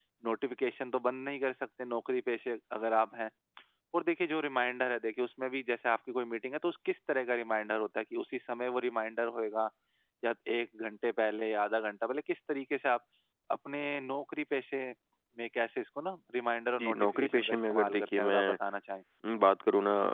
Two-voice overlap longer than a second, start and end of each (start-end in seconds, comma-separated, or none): 16.8-18.6